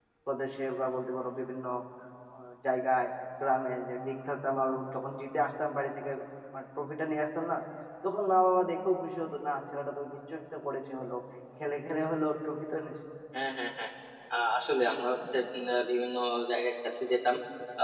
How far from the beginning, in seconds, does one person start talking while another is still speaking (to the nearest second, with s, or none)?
none